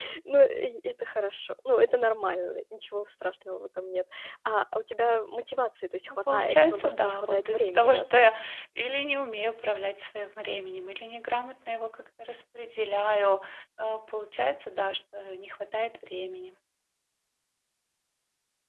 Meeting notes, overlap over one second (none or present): present